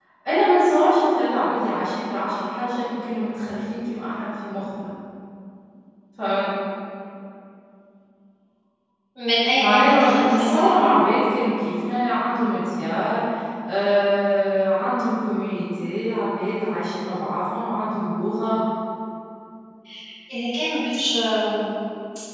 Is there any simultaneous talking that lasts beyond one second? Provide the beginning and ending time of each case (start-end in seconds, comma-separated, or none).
9.6-11.1